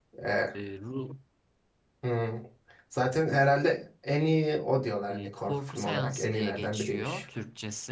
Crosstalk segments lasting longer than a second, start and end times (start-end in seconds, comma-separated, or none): 5.1-7.2